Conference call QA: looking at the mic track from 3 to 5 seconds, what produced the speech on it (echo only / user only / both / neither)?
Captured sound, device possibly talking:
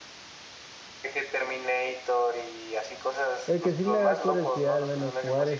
both